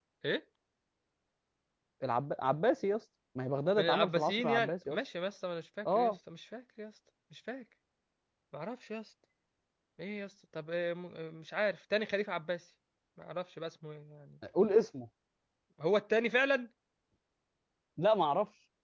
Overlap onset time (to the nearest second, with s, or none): 4 s